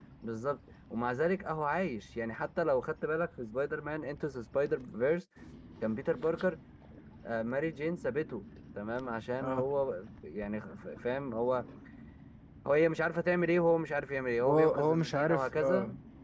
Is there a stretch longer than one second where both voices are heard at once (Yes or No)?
Yes